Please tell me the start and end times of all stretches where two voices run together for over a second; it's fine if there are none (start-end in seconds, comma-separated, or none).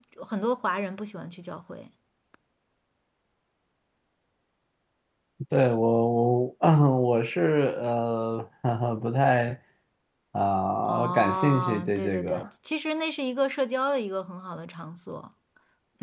10.8-12.4